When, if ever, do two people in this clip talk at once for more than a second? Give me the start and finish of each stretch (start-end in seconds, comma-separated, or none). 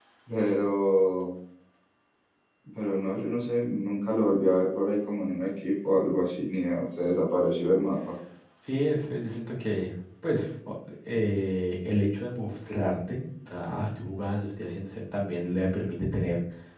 none